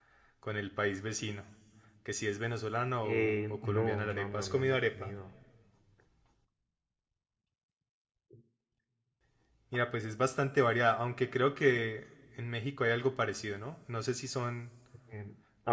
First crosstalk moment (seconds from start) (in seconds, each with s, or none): 3.0 s